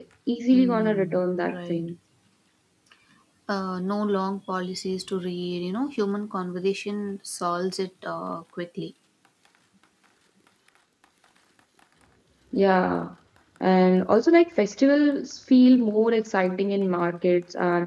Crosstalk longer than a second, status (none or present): present